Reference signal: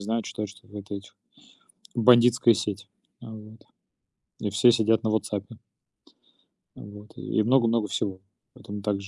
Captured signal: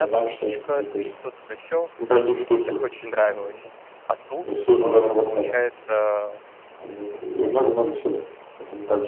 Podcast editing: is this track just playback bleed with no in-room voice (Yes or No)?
No